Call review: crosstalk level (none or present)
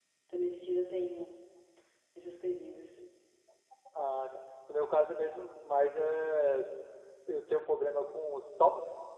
none